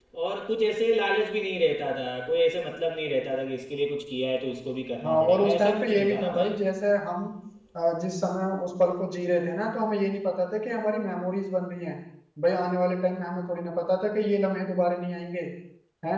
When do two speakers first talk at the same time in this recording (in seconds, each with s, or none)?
5.0 s